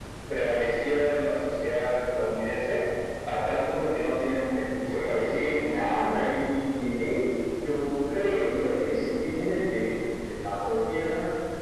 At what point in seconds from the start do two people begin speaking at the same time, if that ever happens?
5 s

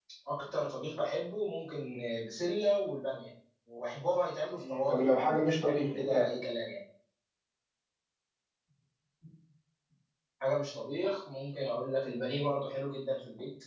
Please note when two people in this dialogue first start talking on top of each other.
5 s

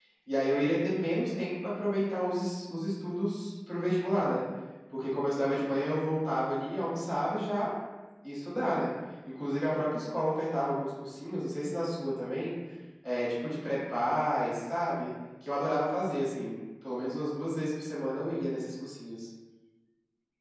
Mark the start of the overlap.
none

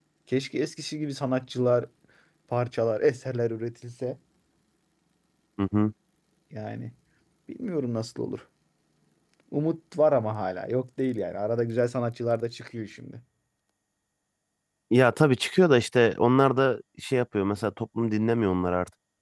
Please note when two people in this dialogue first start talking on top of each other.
none

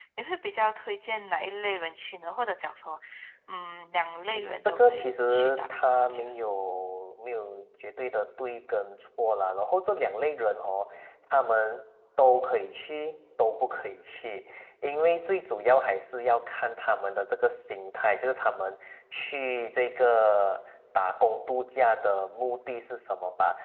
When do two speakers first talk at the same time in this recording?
5 s

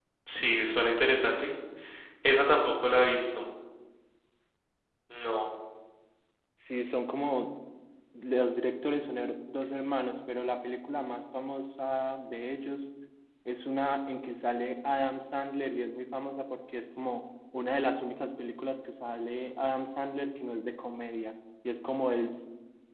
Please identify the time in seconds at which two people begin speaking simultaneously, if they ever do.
none

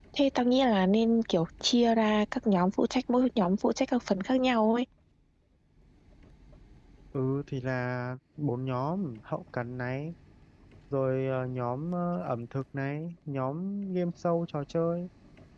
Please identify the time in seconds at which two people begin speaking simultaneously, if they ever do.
none

